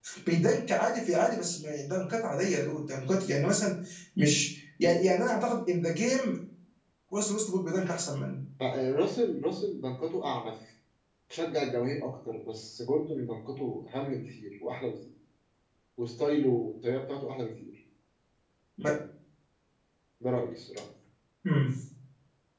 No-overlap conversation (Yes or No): Yes